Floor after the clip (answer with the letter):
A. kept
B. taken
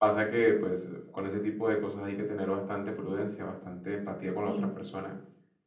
A